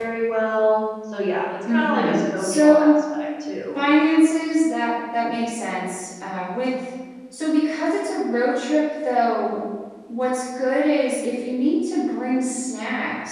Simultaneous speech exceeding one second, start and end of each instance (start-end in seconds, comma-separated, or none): 1.7-3.0